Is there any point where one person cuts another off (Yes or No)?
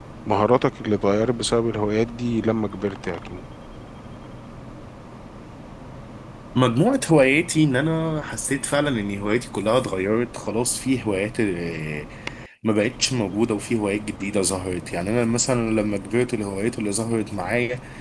No